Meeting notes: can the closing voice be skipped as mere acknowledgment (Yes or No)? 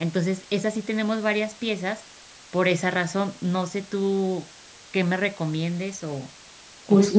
No